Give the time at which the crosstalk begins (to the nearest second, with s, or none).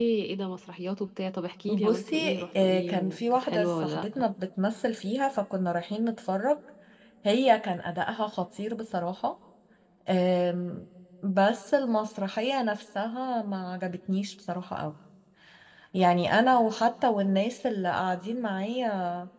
2 s